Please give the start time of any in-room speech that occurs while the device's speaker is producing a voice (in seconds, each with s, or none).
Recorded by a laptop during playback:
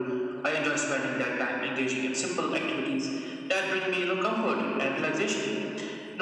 none